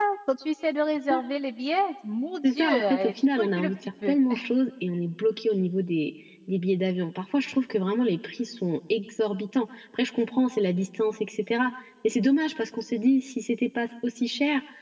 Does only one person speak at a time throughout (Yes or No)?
No